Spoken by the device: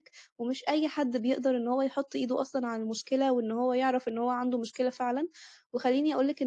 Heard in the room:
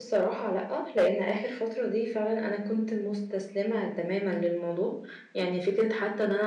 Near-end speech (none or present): present